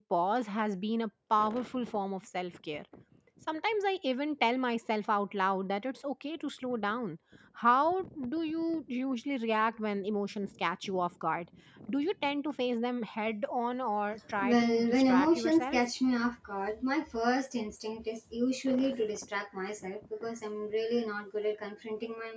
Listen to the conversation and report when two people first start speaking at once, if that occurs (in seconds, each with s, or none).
14.4 s